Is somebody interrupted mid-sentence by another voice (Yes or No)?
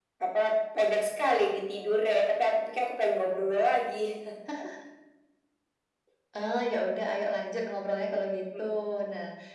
No